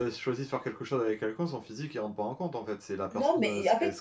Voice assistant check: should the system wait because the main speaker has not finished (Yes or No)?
No